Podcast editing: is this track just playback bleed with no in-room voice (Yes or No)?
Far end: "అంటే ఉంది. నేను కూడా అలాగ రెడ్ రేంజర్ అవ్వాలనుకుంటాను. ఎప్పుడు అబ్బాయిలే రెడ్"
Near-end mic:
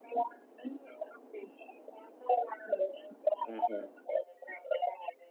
No